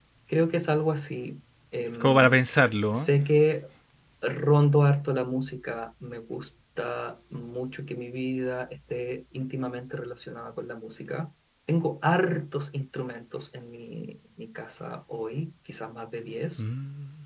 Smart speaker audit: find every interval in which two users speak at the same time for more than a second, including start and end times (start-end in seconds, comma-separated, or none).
none